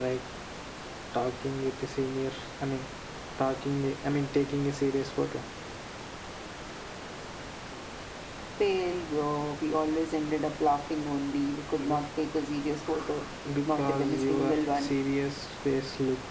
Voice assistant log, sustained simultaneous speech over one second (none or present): present